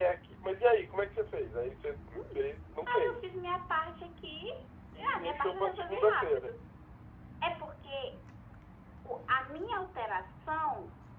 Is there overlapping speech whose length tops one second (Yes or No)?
Yes